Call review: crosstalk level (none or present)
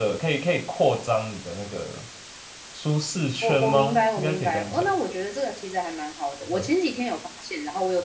present